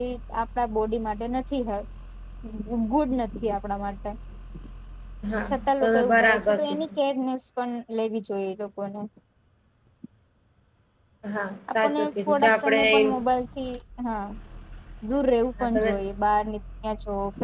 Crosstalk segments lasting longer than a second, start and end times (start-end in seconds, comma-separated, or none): 5.4-6.8, 11.8-13.2